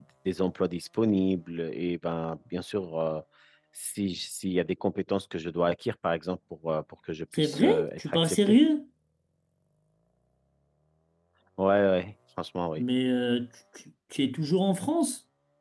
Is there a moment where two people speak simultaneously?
Yes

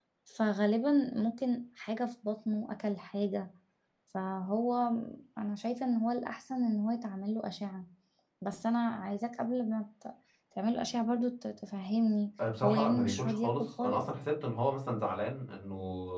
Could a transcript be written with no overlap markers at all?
No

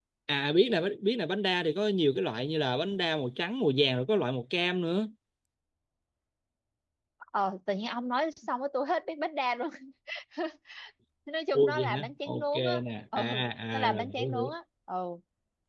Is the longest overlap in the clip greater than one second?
Yes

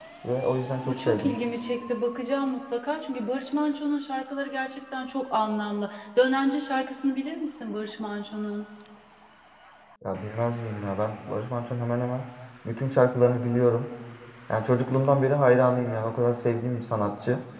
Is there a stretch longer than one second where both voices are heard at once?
No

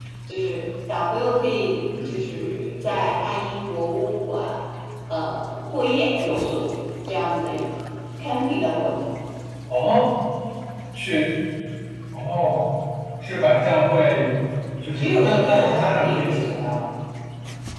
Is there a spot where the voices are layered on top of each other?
Yes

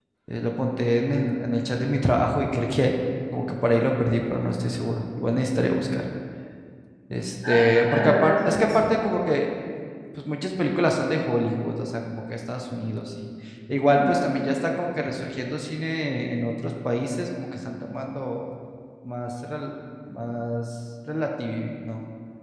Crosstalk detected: Yes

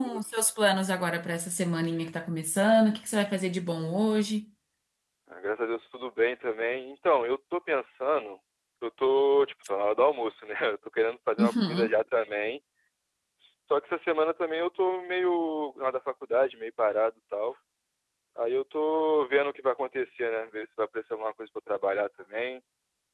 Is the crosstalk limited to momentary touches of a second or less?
Yes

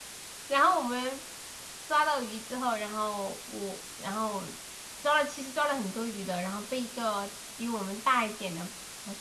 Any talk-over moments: No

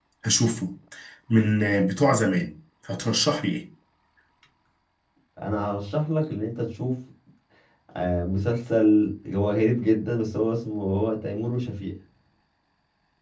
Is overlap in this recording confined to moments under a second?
Yes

